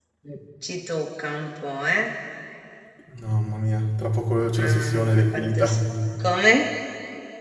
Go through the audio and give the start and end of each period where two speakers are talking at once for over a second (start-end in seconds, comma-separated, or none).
4.5-5.8